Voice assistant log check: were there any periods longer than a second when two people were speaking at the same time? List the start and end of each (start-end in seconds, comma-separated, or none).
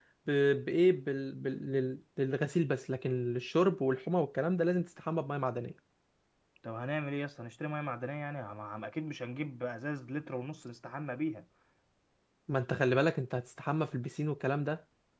none